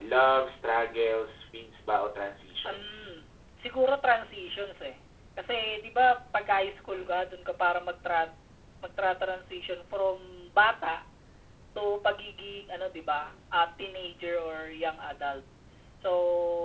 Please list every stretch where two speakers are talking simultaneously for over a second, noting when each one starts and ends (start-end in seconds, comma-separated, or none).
none